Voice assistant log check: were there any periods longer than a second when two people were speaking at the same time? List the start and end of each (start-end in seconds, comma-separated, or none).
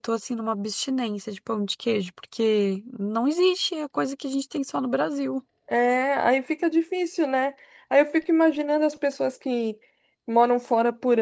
none